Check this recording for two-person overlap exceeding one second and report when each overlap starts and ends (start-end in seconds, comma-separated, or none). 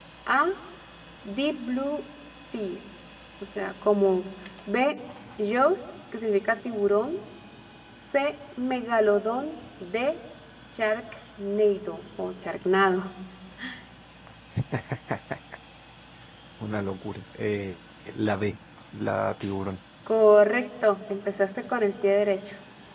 none